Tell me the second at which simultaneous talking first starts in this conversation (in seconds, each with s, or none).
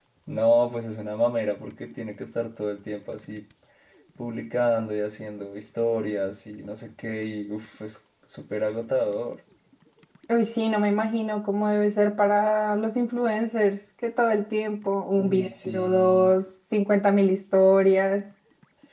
15.2 s